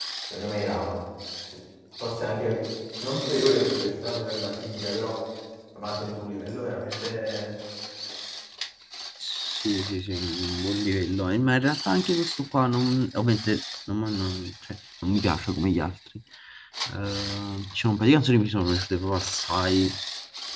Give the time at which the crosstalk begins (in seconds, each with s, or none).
none